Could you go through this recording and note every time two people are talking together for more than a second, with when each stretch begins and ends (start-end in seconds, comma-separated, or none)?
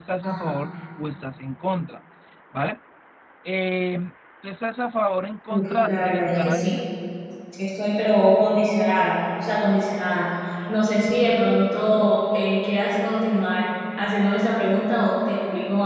5.5-6.8